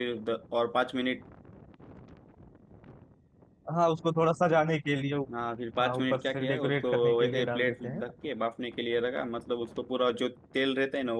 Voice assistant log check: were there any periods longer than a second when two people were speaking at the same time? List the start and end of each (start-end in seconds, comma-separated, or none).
5.8-8.0